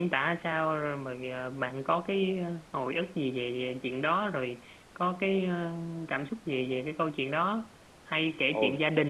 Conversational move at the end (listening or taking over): listening